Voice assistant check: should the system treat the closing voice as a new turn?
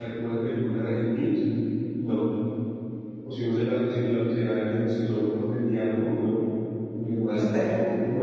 No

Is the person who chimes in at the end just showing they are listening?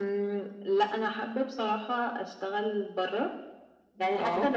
Yes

